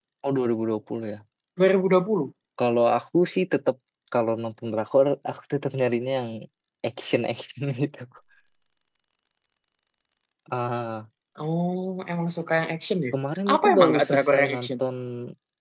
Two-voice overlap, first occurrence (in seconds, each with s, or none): 13.5 s